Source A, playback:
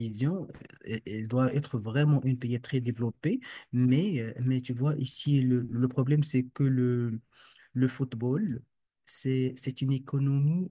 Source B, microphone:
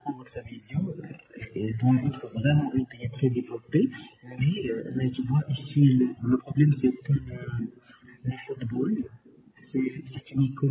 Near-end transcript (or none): none